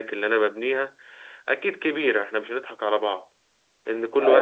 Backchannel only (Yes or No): No